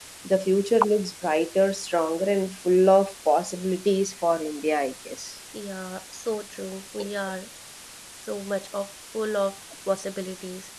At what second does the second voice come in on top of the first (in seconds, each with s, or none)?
none